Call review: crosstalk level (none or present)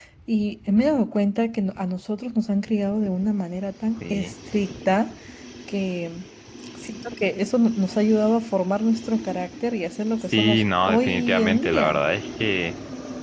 present